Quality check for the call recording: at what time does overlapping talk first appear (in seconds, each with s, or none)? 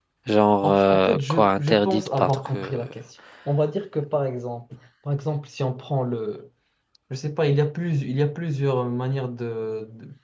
0.6 s